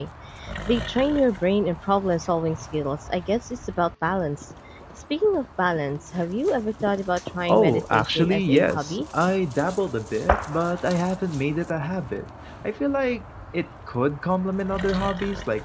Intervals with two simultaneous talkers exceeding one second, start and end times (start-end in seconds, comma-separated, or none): 7.5-9.0